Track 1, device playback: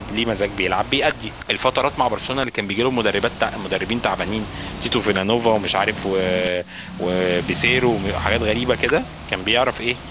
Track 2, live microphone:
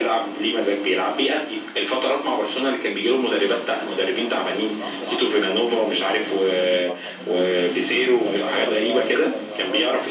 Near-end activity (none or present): present